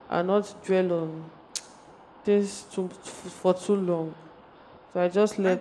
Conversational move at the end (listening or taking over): taking over